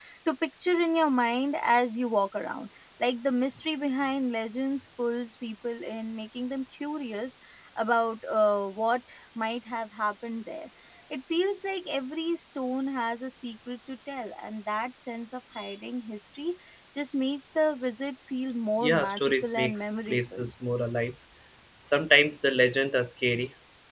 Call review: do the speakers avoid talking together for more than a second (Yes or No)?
No